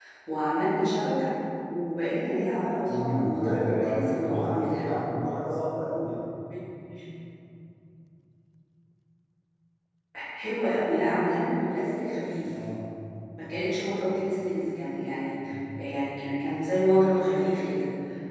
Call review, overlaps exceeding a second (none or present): present